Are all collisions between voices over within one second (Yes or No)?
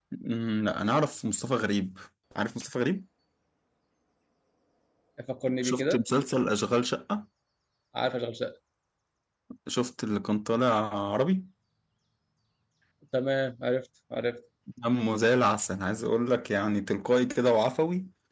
Yes